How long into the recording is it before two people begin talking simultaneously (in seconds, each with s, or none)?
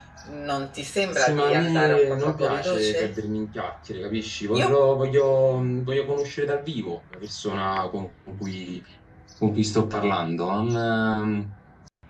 1.1 s